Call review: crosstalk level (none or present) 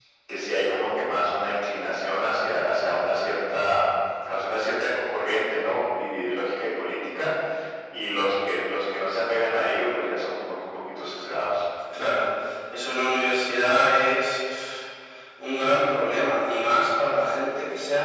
none